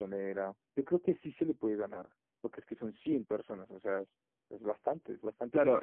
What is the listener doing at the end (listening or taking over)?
taking over